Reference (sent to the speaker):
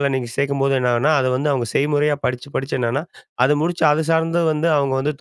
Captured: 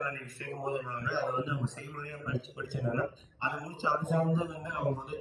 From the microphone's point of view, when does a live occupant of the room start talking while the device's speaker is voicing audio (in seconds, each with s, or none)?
none